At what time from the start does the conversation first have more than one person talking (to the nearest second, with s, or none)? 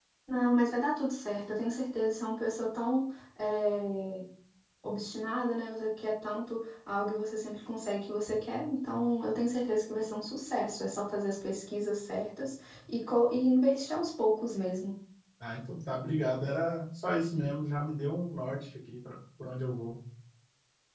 none